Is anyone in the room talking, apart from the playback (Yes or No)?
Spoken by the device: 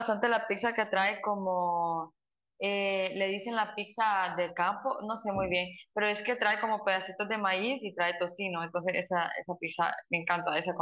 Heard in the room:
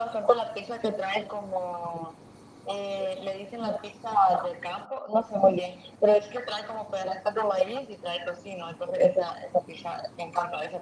No